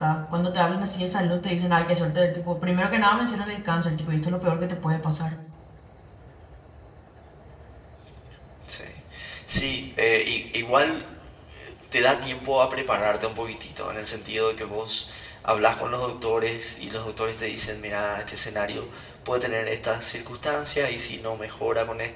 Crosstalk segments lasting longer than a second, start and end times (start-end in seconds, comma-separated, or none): none